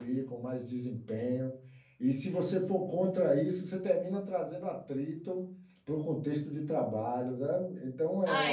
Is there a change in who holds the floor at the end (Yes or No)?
Yes